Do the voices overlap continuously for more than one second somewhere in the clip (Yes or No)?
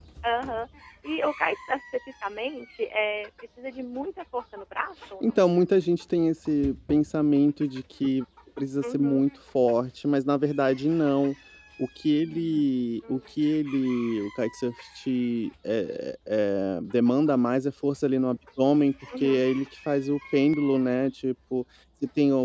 No